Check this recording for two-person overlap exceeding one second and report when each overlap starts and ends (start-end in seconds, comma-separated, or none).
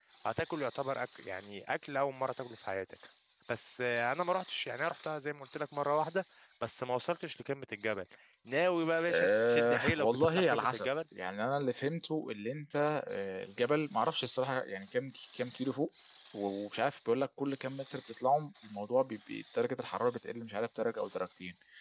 9.1-10.9